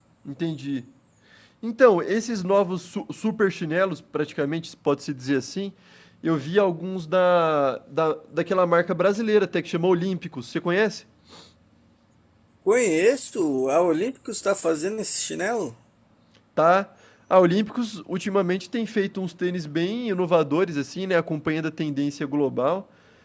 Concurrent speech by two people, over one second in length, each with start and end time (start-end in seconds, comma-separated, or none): none